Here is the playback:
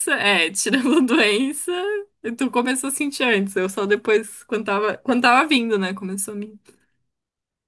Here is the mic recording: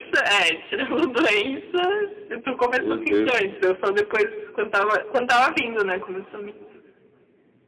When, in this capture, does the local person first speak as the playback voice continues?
2.8 s

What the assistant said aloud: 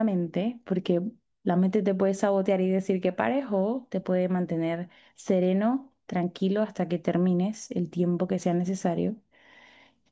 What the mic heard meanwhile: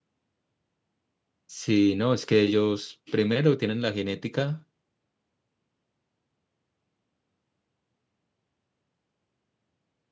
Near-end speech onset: 1.4 s

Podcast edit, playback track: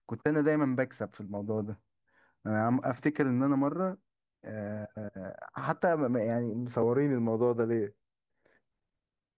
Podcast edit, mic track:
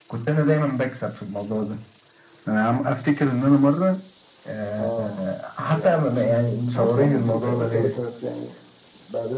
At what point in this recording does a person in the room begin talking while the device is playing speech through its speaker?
4.8 s

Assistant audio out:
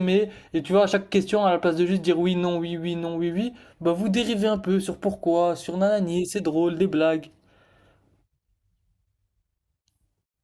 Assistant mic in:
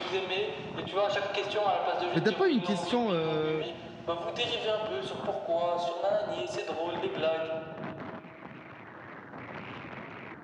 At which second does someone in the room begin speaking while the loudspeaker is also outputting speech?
2.1 s

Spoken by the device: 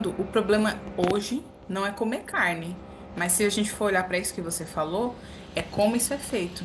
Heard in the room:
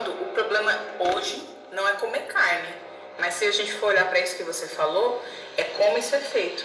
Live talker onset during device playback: none

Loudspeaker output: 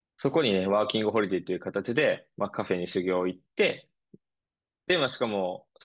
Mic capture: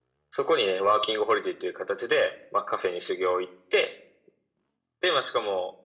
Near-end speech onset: none

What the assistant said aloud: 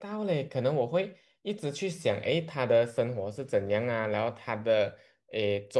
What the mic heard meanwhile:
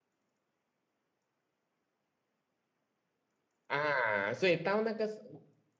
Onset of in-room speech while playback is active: 3.7 s

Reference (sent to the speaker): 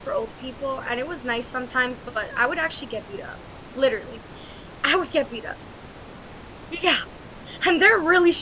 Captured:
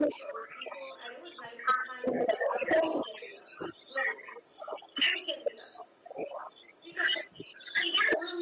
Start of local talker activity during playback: none

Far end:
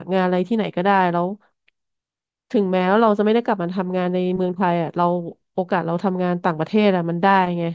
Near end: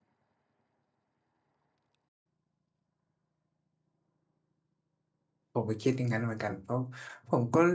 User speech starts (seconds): 5.5 s

